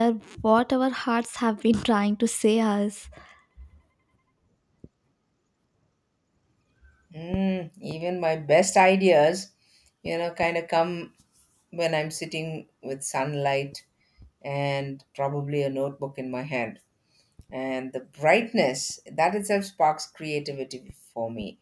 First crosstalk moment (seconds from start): none

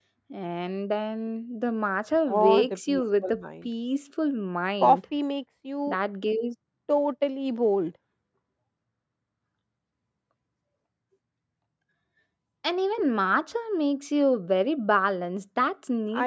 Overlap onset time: 2.3 s

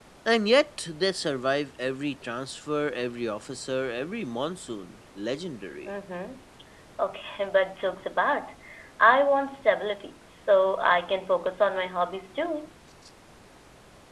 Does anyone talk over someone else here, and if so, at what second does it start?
none

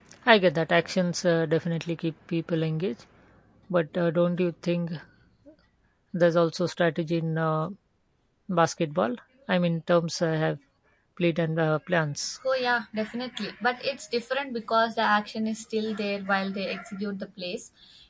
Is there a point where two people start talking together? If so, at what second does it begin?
none

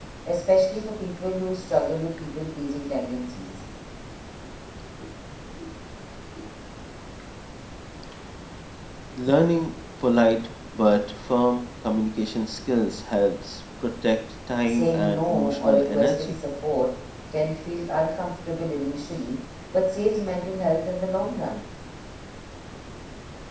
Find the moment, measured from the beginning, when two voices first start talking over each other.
14.7 s

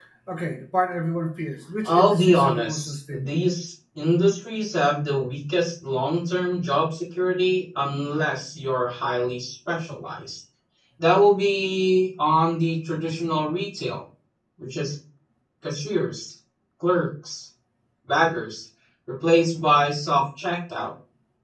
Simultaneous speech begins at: 1.8 s

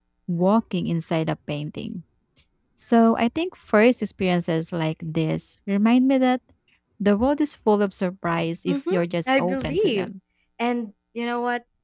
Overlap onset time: 8.7 s

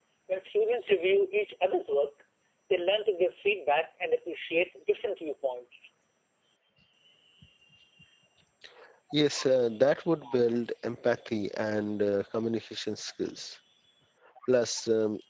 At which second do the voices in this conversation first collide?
none

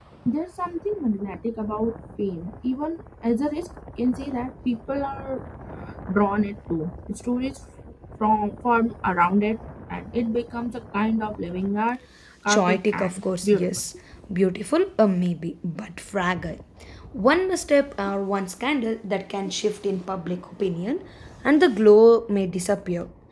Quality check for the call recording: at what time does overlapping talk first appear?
12.5 s

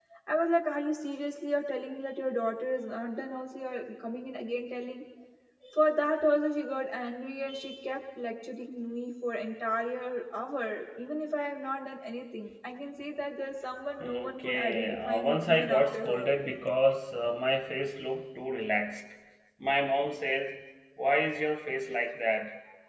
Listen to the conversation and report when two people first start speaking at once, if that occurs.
14.0 s

